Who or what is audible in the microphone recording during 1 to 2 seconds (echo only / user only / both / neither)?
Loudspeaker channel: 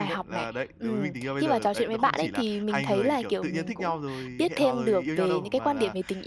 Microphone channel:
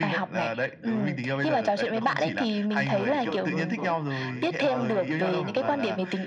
echo only